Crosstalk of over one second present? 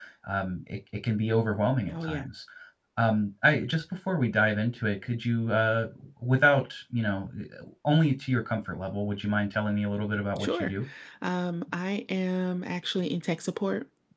No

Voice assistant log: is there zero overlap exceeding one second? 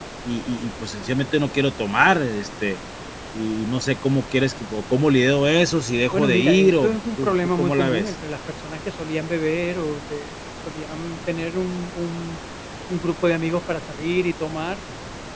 No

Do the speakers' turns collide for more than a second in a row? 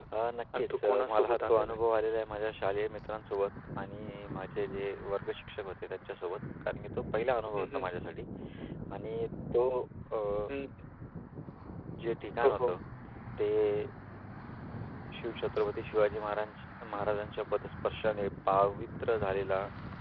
Yes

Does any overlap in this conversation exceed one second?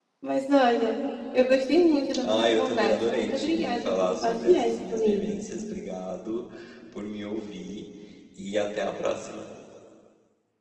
Yes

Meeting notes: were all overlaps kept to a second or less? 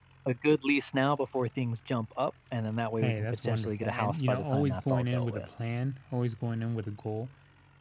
No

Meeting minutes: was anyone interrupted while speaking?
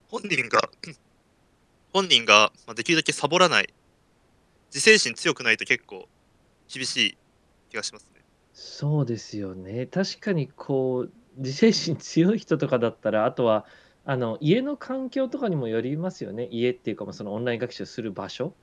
No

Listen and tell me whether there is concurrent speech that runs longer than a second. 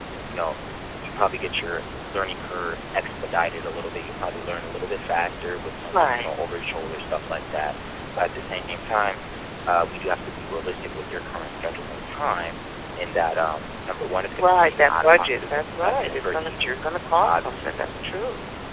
Yes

